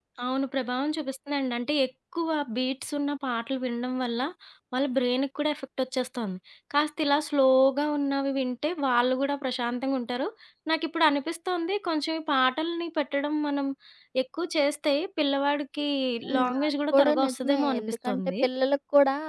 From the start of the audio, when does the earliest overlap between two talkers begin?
16 s

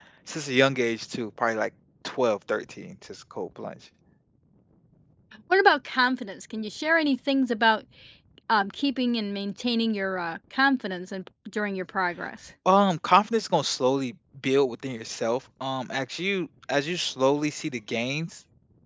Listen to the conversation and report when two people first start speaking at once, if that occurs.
none

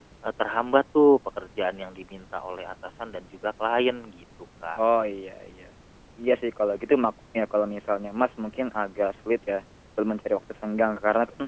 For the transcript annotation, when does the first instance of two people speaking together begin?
none

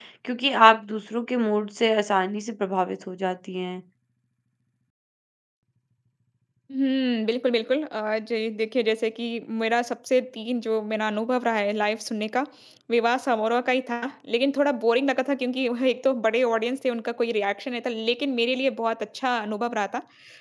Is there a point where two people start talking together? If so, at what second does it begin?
none

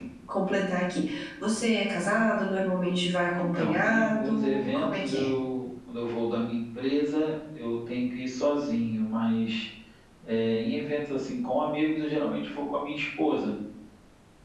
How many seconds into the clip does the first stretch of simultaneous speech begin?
3 s

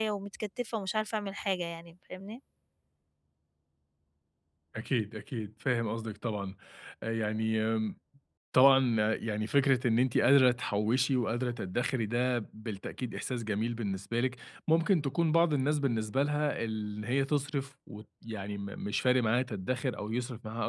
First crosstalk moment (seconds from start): none

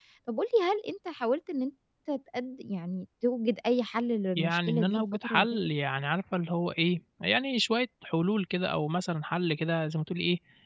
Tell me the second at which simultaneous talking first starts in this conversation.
4 s

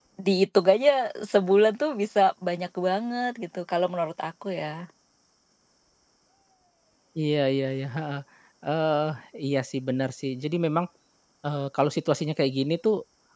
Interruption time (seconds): none

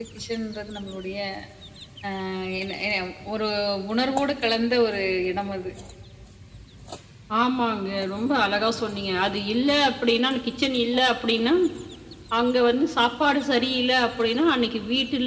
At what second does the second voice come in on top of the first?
none

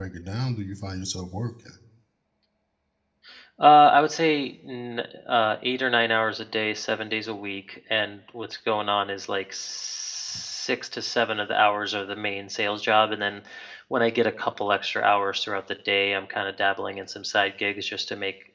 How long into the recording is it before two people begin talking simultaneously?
none

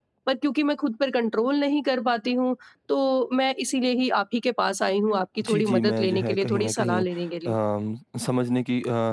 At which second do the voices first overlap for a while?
5 s

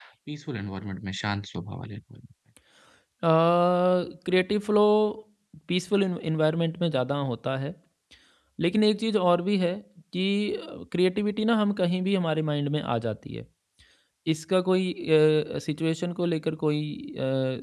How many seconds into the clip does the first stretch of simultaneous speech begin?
none

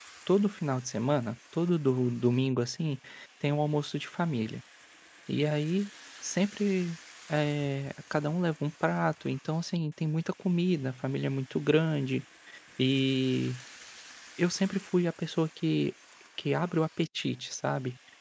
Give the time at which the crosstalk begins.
none

